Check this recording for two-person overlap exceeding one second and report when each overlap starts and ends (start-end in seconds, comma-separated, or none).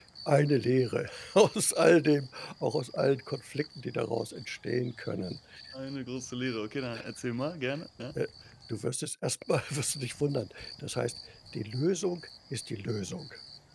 none